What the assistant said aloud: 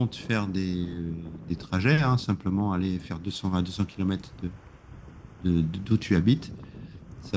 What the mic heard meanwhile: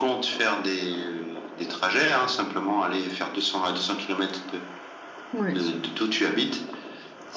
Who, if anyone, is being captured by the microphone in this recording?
both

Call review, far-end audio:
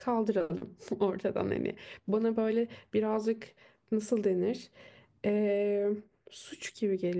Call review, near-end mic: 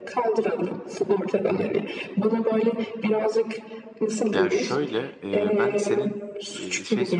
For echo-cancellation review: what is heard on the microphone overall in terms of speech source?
both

